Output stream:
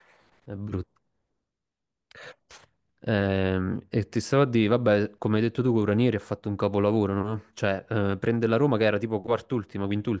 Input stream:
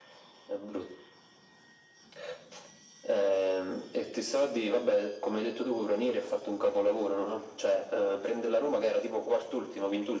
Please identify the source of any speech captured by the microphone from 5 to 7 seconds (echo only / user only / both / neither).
echo only